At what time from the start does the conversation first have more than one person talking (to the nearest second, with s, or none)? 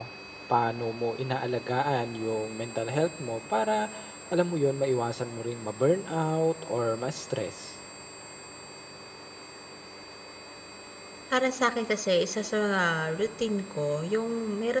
none